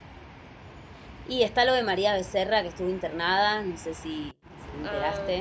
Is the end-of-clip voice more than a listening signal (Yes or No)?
Yes